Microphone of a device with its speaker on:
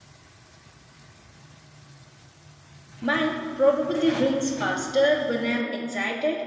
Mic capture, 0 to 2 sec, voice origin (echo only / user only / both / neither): neither